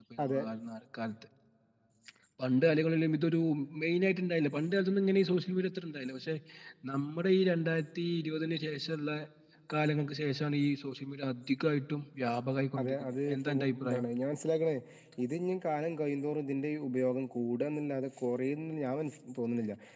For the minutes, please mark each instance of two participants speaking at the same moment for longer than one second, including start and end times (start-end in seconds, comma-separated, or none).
12.8-14.0